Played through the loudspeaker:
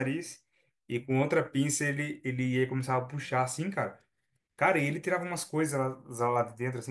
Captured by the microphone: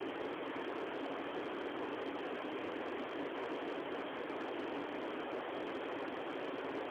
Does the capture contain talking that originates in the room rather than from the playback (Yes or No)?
No